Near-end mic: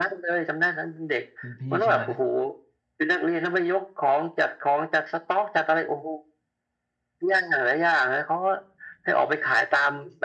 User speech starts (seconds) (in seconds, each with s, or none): 1.4 s